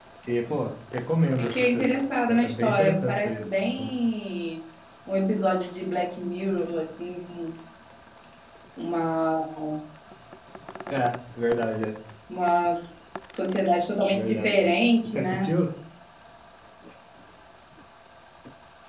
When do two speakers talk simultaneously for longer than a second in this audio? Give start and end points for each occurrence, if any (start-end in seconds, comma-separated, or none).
2.3-3.5